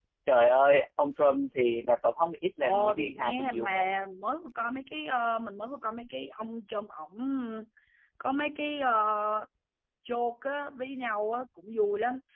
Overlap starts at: 2.6 s

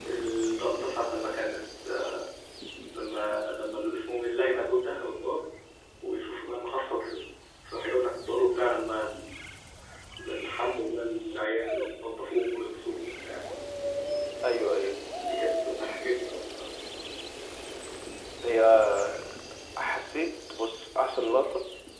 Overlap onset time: none

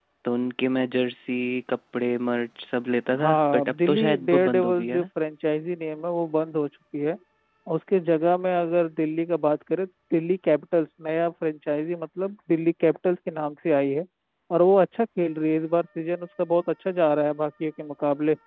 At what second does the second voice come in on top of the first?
3.1 s

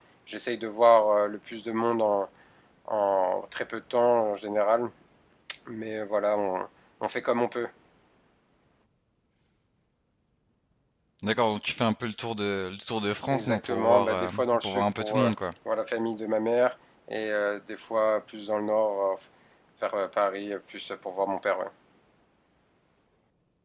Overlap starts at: 13.3 s

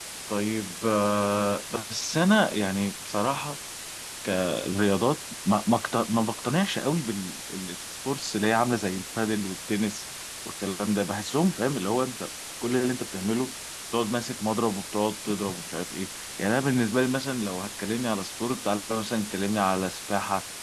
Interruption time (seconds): none

